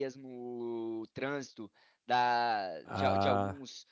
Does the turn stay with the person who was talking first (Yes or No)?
Yes